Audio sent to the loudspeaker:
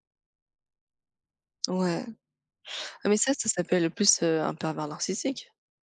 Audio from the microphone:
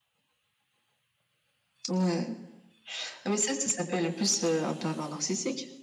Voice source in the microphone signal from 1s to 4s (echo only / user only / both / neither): echo only